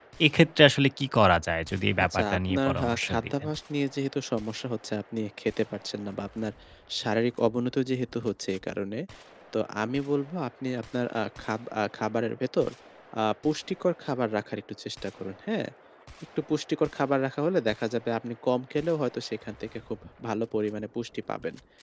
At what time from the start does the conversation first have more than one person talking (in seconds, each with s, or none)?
2.0 s